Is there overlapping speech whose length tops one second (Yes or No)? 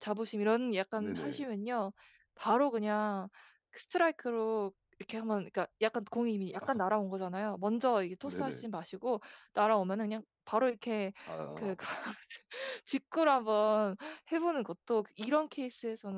No